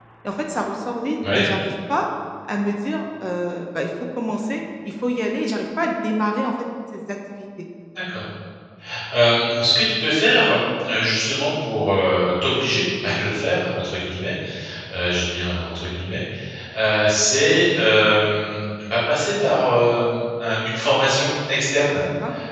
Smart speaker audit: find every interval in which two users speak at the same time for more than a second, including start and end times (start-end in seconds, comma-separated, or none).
none